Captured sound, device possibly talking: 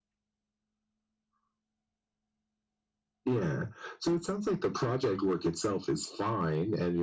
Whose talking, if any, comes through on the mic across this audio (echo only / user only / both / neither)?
echo only